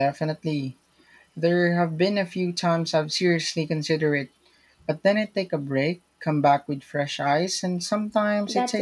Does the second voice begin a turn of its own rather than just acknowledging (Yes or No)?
Yes